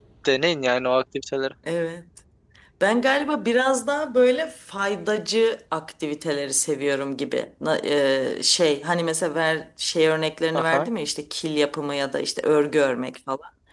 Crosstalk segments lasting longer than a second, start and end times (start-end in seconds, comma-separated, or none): none